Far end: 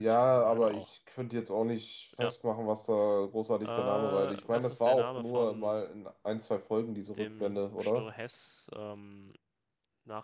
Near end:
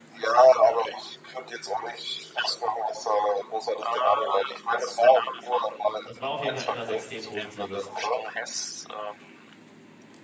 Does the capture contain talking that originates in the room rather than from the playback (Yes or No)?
Yes